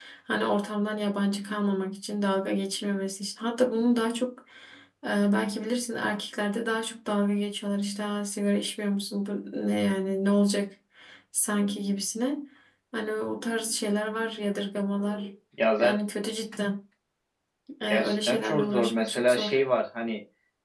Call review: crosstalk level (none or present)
present